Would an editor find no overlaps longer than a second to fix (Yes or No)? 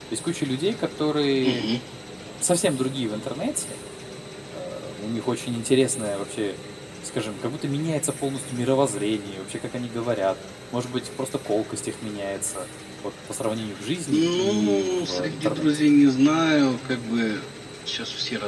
No